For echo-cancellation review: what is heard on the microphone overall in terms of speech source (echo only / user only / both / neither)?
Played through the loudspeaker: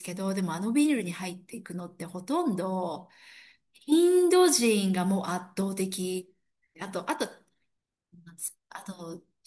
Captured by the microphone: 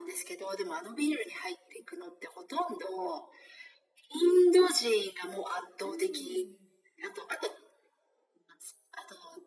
both